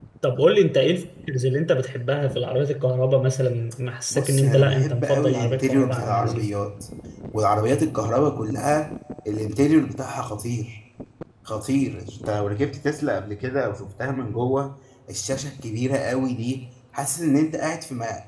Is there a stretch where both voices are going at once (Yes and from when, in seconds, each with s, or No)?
Yes, from 4.1 s